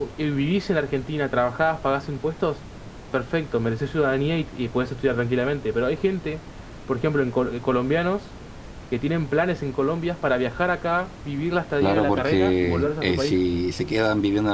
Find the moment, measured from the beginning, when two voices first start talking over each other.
11.8 s

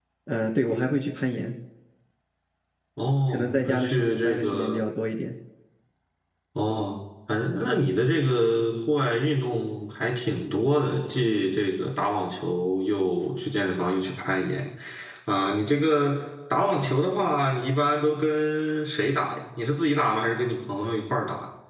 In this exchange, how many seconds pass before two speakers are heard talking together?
3.3 s

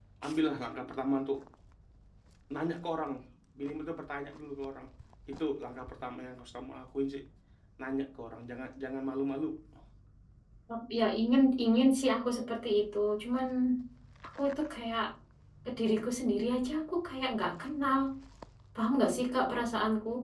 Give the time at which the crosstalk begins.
none

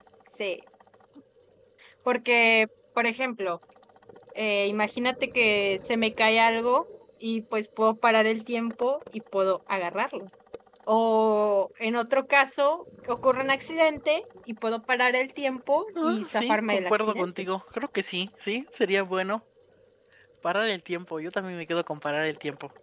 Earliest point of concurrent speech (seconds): 15.9 s

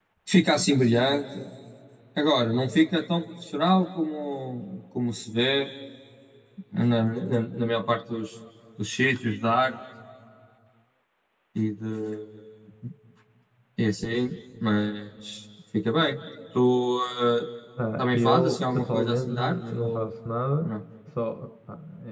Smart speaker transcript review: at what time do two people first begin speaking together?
18.0 s

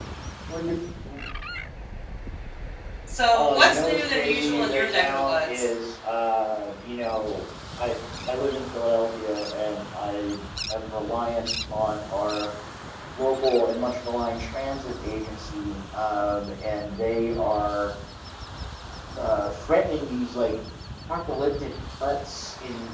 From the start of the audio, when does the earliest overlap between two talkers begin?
3.3 s

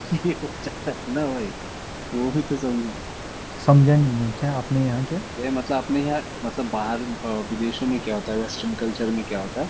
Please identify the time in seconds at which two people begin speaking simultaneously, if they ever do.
none

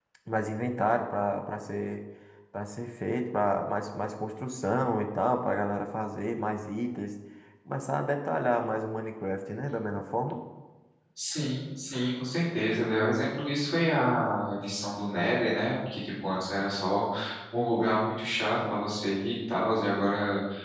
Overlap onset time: none

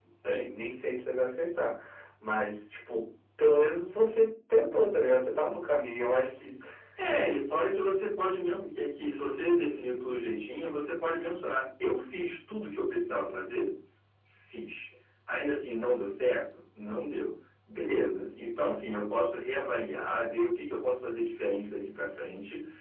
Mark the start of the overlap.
none

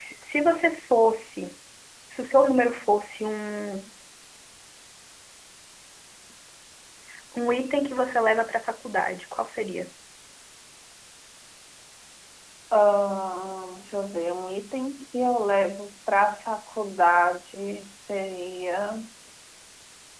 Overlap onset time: none

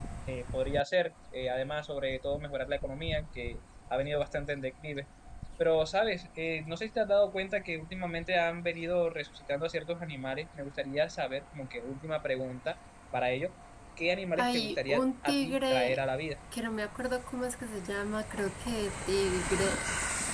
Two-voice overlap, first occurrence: 14.4 s

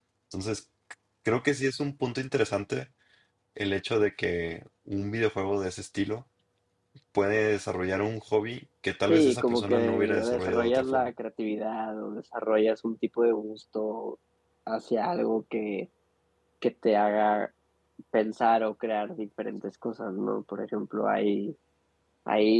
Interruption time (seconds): 9.1 s

